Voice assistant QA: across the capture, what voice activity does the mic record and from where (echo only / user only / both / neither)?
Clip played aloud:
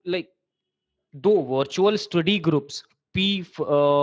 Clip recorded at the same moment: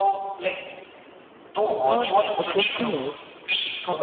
both